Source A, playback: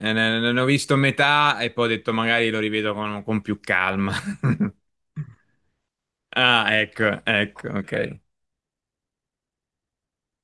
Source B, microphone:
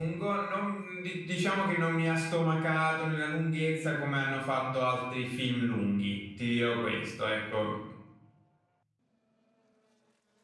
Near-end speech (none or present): present